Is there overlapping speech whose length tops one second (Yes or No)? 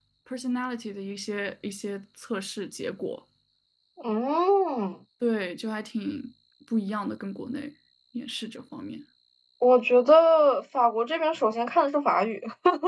No